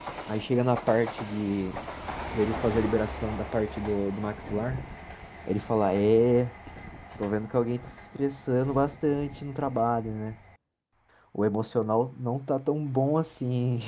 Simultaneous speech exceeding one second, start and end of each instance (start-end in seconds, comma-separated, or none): none